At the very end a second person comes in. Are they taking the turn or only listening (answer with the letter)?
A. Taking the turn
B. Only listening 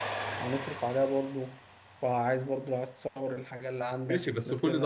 A